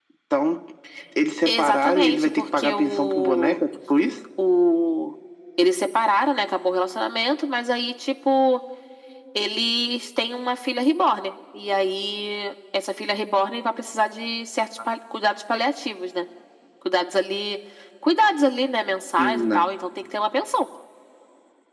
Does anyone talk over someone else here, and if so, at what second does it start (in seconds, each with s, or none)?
1.4 s